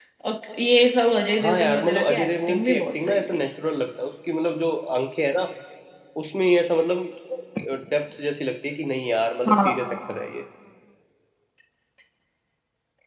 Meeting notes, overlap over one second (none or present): present